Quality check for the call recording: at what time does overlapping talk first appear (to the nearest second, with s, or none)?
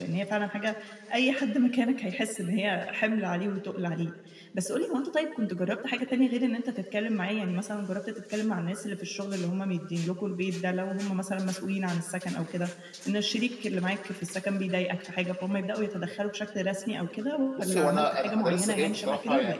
18 s